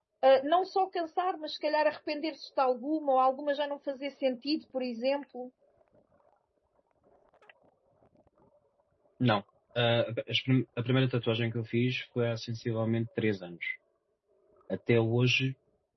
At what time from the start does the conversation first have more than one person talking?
none

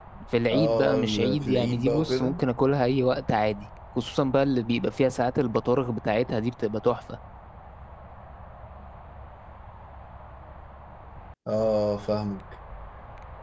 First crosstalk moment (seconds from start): 0.5 s

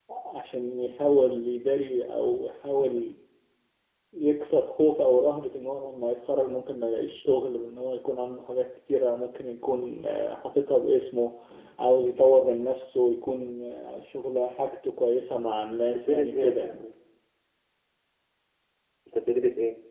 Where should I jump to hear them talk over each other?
15.4 s

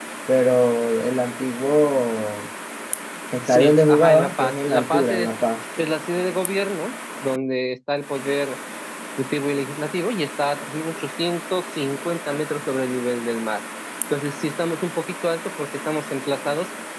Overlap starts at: 3.5 s

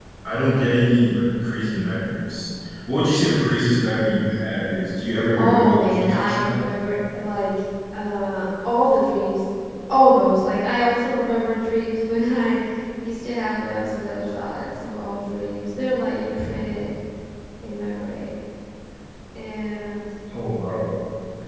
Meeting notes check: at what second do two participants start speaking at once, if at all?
5.4 s

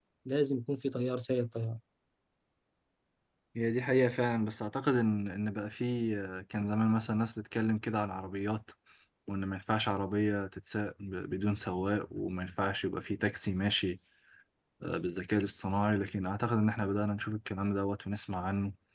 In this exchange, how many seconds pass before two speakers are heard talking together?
none

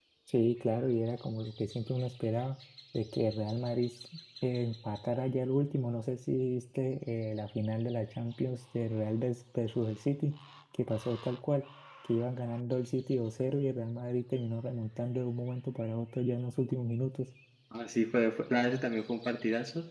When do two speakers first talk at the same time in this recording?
none

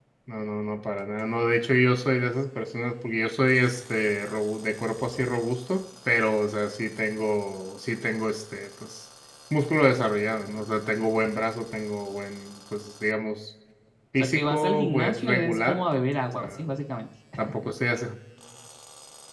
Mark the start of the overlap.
14.2 s

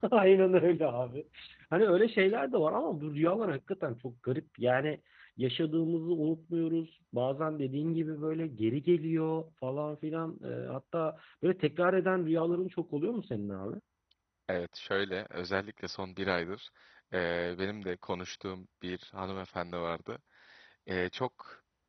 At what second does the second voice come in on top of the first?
none

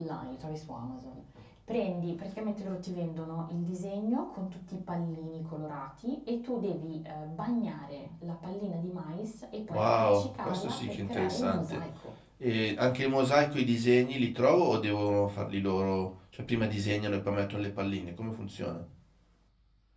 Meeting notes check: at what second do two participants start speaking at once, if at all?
9.7 s

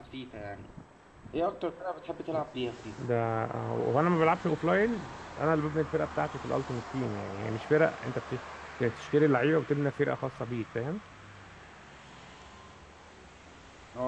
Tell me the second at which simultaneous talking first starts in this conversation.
none

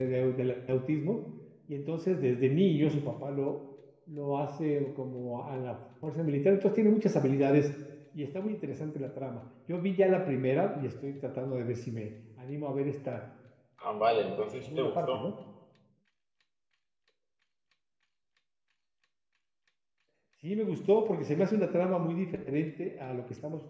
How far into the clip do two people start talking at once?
14.0 s

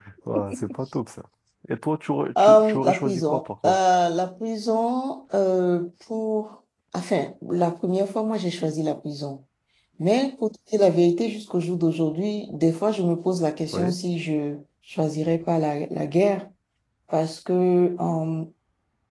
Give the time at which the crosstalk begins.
2.4 s

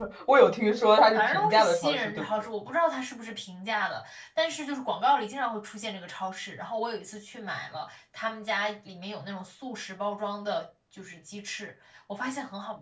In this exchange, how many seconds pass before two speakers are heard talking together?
0.7 s

